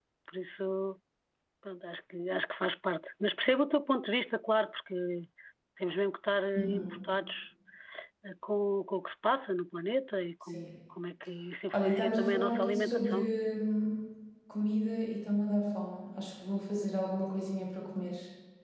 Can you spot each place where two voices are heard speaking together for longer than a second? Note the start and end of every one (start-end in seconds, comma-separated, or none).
11.7-13.3